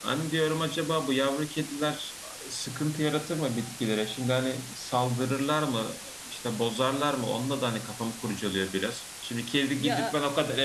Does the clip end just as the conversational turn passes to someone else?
No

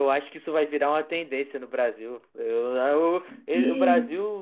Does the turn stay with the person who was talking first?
Yes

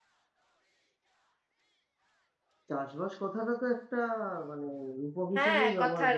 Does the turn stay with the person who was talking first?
No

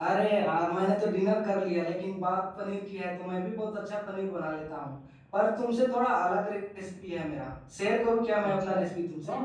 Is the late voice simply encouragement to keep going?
No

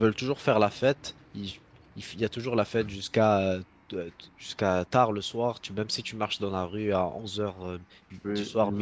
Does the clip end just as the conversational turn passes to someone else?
Yes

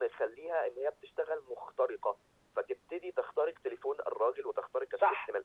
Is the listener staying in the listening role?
No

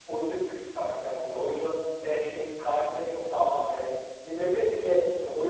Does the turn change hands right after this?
No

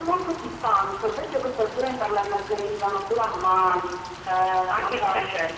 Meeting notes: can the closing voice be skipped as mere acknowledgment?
No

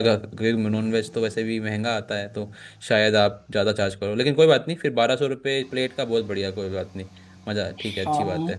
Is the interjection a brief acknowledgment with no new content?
No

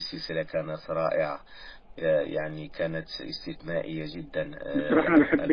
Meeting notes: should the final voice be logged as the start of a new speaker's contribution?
Yes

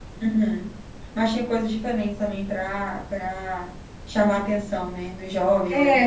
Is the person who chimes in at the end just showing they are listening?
No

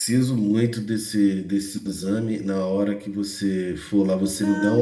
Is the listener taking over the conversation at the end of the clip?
Yes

